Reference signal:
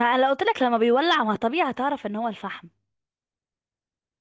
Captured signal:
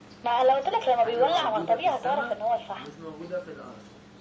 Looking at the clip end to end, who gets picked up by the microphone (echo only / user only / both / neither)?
both